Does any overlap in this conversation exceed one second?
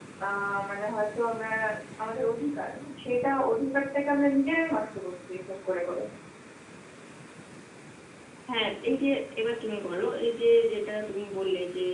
No

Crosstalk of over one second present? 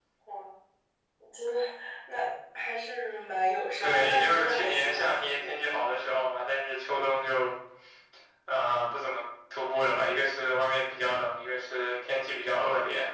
Yes, from 3.8 s

